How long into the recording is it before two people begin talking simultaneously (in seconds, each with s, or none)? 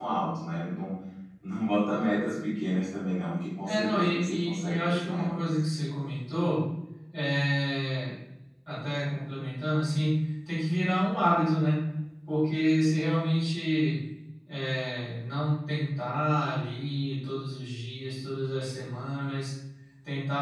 3.6 s